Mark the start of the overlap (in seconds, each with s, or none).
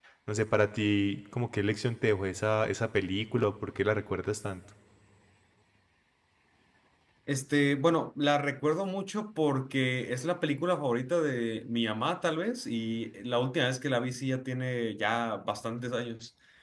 none